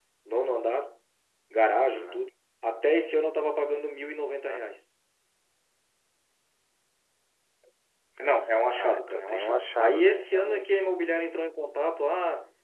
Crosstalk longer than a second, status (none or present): present